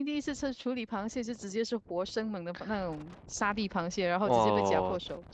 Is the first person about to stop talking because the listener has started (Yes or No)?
Yes